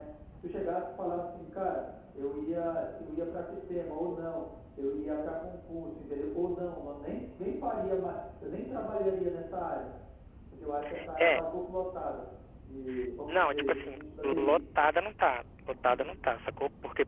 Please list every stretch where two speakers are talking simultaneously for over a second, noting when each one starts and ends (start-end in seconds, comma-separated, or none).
13.3-14.5